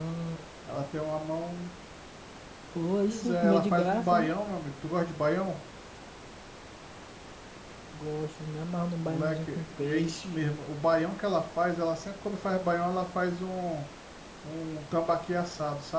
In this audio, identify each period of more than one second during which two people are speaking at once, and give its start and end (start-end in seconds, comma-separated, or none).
3.0-4.3, 9.0-10.3